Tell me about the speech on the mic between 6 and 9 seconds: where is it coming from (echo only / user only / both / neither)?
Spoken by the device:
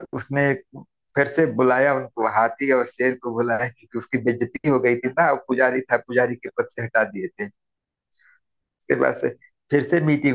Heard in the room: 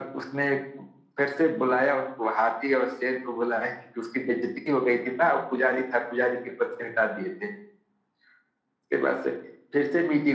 echo only